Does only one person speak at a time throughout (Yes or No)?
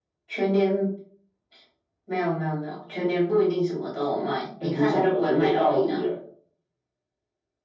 No